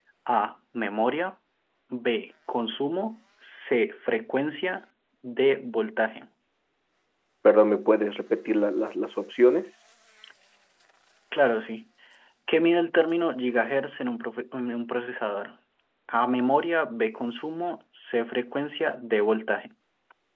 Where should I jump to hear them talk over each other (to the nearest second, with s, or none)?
none